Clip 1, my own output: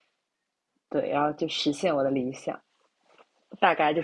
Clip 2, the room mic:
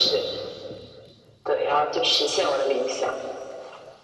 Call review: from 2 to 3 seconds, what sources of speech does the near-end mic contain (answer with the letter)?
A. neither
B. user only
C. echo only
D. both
C